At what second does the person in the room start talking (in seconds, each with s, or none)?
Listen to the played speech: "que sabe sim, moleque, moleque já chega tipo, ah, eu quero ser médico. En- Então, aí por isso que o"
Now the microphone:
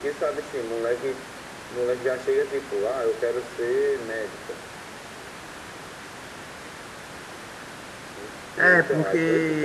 8.6 s